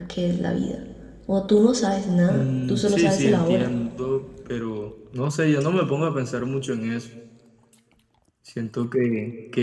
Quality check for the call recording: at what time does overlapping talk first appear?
2 s

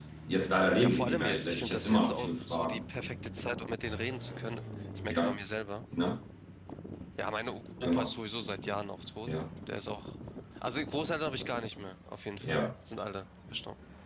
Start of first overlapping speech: 1 s

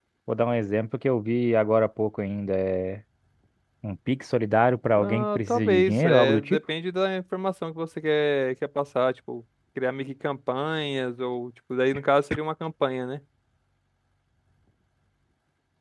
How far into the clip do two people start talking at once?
5 s

